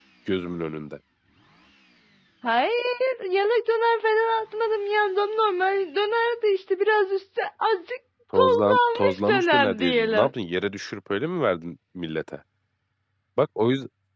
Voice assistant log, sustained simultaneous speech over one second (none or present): present